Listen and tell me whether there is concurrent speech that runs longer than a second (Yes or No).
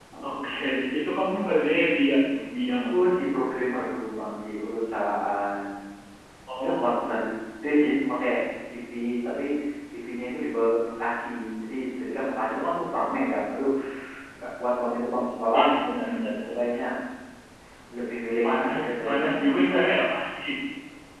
Yes